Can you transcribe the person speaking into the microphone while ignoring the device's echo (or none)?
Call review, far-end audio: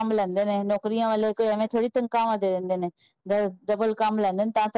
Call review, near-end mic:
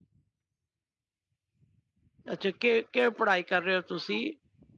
ਅੱਛਾ ਕਿ ਕਿਵੇਂ ਪੜ੍ਹਾਈ ਕਰ ਰਹੇ ਹੋ ਤੁਸੀਂ